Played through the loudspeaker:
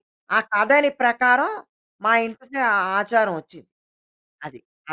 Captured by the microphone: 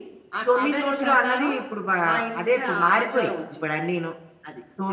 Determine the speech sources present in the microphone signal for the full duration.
both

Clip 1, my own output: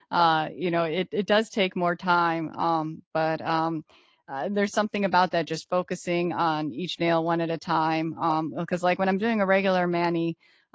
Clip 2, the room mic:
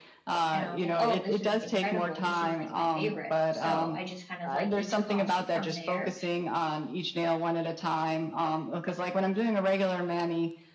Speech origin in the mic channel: both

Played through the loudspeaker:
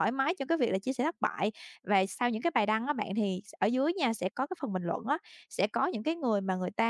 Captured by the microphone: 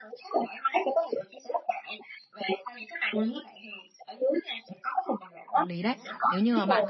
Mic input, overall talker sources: both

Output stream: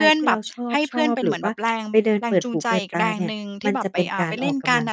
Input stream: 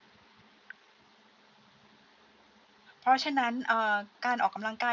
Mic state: user only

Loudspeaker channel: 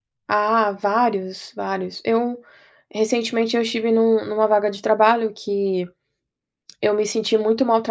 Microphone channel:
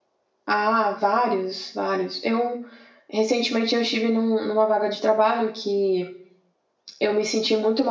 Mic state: echo only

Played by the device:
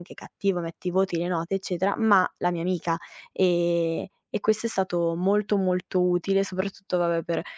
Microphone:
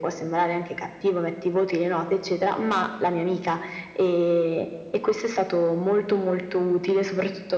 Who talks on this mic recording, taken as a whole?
echo only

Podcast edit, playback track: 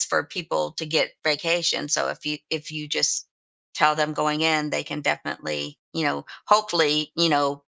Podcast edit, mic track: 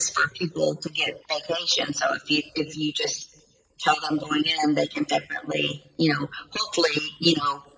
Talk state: echo only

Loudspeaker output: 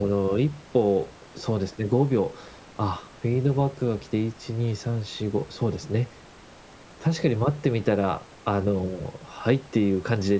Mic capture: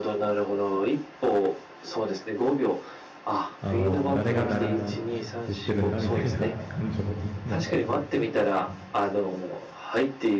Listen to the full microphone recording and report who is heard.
both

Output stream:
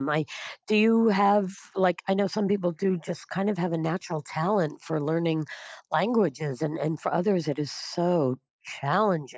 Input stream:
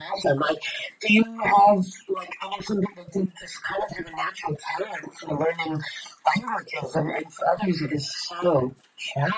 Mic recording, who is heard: echo only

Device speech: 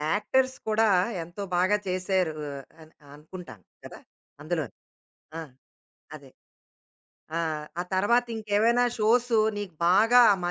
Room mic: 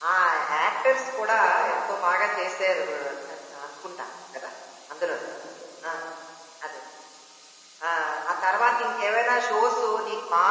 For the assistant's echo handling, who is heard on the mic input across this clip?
echo only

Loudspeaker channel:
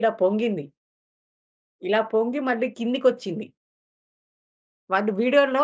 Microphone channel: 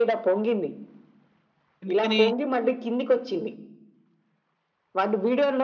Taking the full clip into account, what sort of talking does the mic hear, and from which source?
both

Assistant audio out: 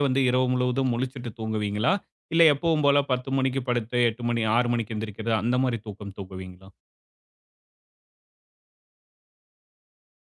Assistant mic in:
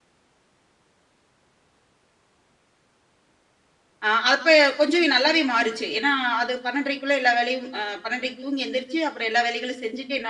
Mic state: user only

